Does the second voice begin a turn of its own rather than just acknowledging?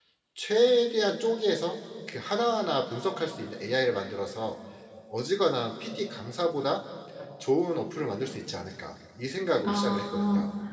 Yes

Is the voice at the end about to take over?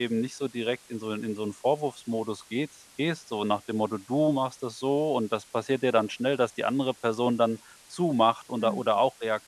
No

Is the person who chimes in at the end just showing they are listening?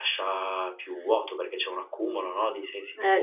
No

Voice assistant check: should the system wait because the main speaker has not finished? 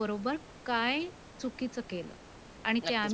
No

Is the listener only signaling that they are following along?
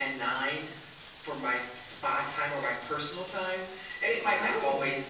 Yes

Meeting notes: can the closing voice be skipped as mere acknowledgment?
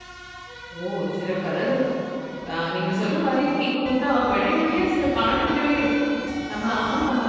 Yes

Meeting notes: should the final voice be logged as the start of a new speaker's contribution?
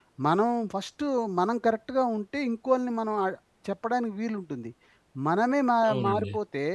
No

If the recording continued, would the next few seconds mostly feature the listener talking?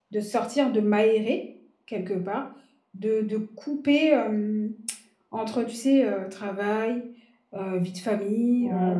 No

